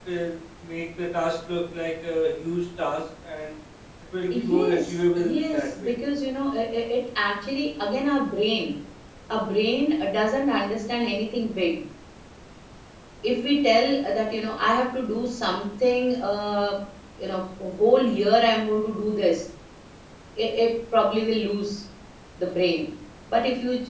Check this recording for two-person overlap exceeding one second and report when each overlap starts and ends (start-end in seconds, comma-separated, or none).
4.3-5.9